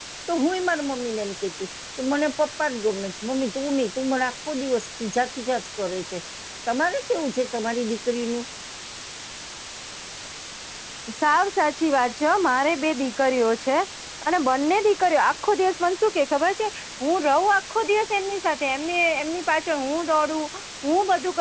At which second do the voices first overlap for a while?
none

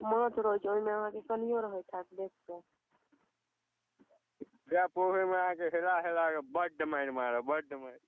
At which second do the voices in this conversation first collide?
none

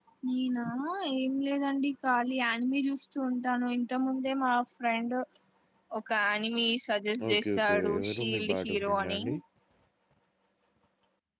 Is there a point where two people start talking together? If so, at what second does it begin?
7 s

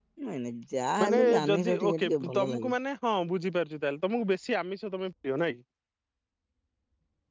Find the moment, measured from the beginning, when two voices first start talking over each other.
1 s

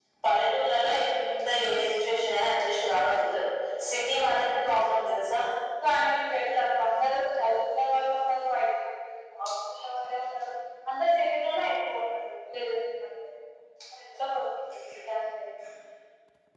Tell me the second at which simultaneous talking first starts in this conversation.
none

